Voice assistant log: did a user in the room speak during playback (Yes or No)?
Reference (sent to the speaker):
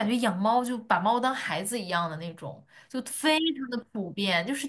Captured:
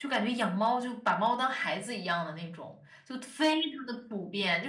No